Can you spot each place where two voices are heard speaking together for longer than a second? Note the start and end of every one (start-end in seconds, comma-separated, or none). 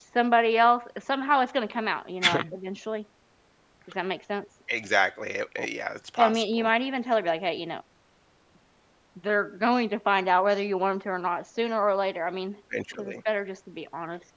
none